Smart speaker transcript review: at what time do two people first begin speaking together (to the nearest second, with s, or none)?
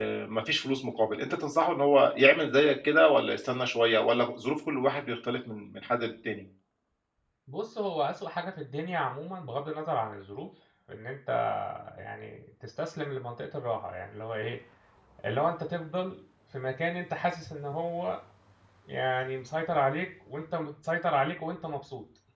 none